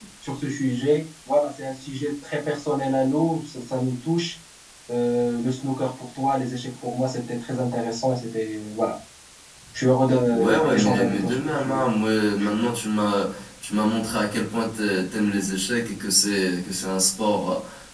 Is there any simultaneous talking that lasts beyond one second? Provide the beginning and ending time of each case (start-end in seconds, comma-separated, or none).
10.3-11.8